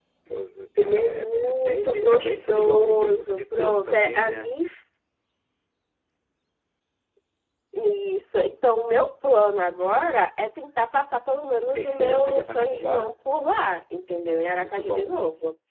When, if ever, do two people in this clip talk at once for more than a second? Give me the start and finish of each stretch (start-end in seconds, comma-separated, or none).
0.8-4.5, 11.8-13.1